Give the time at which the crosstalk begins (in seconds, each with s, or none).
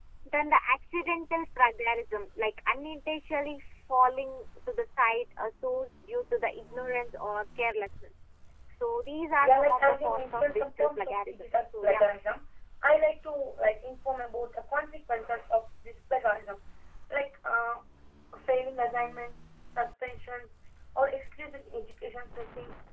9.4 s